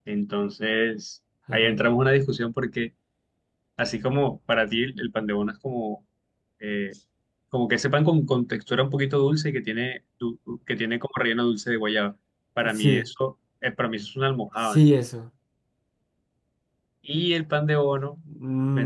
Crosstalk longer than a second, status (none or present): none